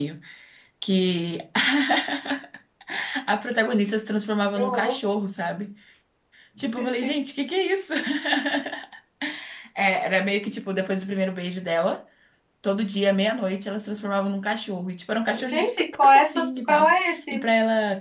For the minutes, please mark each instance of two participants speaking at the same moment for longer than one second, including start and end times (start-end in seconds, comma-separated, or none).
15.4-16.9